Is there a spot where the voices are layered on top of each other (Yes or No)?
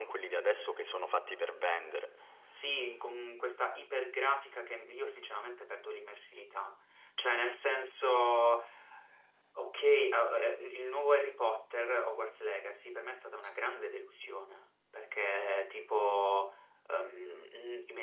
No